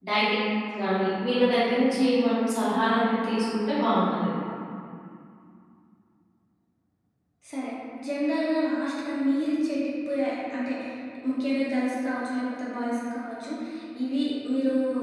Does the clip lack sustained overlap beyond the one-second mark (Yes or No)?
Yes